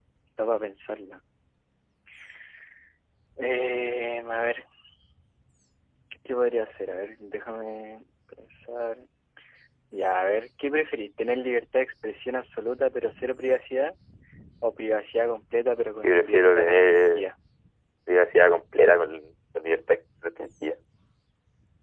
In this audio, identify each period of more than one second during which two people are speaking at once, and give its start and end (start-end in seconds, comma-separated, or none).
16.0-17.3